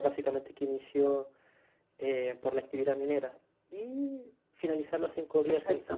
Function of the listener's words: listening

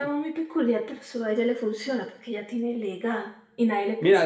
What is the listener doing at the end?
taking over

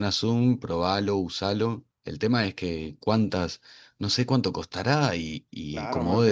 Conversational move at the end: taking over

